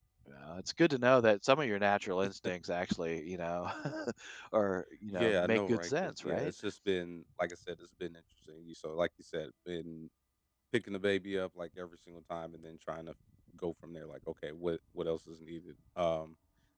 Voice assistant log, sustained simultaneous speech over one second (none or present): present